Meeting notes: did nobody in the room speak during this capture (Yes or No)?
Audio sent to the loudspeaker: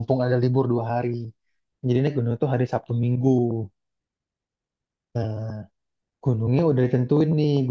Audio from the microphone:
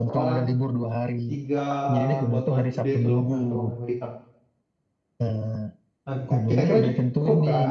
No